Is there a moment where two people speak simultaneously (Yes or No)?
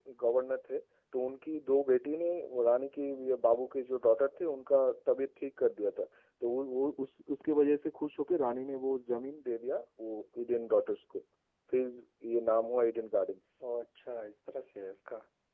No